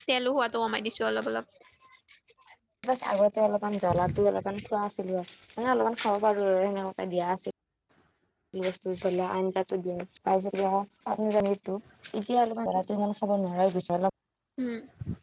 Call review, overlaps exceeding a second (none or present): none